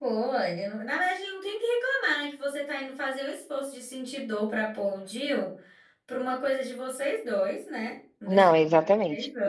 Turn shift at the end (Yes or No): Yes